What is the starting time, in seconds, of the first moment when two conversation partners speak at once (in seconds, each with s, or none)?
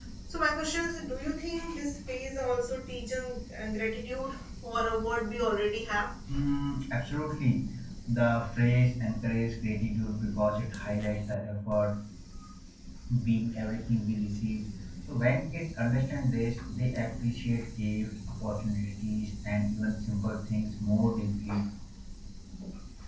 none